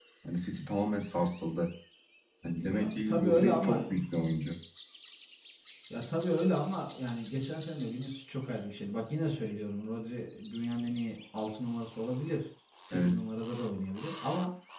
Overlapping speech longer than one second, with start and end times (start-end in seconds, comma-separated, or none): 2.5-3.8